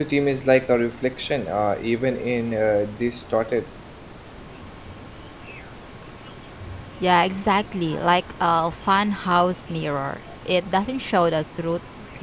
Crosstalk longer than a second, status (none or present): none